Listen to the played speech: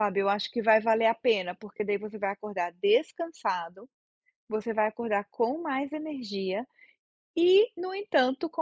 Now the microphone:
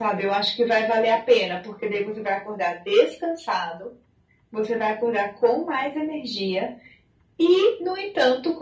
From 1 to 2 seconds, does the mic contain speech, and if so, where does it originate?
echo only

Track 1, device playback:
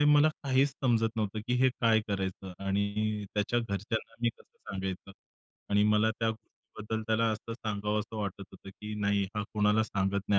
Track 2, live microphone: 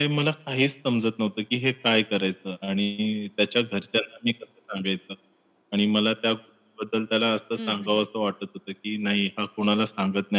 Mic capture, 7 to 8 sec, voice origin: both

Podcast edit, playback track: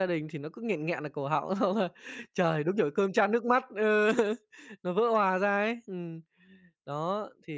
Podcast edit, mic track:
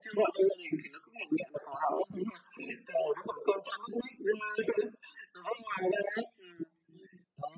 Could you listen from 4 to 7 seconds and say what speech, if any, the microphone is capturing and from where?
echo only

